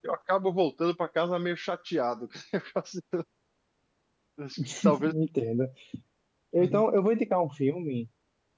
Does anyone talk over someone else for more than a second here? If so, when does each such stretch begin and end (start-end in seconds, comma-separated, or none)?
none